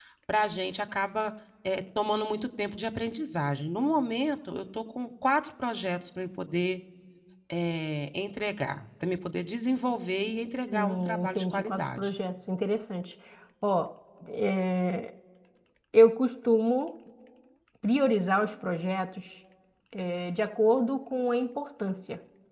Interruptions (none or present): present